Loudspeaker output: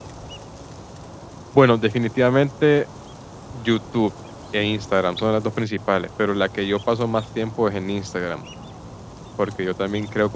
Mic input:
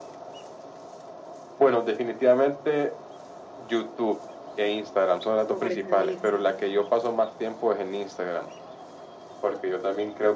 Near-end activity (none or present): present